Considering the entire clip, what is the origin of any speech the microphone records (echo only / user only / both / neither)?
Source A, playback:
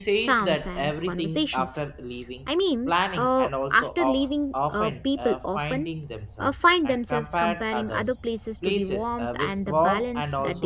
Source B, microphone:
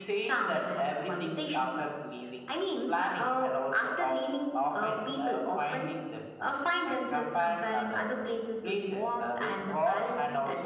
echo only